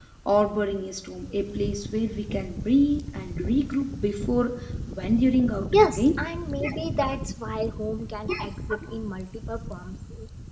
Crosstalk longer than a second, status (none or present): none